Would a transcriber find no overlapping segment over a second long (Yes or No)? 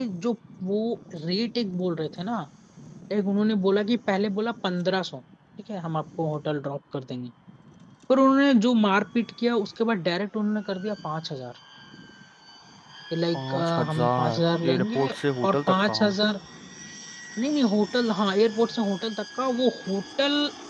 No